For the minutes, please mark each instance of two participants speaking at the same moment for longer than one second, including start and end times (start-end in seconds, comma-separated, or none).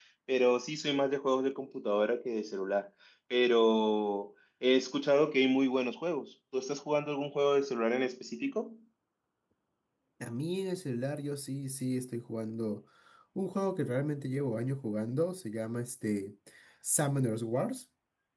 none